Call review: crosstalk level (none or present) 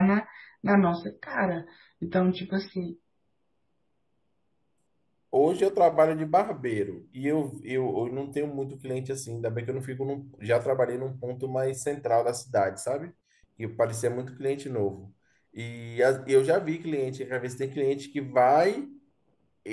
none